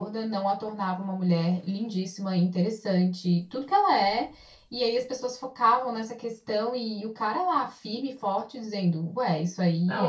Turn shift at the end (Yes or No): Yes